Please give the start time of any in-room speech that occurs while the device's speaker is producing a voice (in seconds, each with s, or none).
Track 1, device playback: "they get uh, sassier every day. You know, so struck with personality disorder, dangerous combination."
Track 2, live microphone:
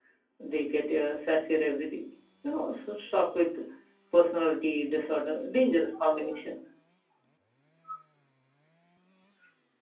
none